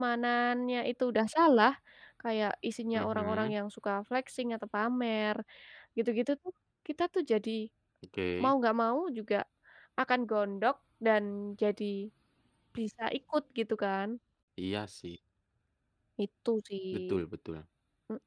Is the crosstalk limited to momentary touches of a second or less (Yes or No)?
Yes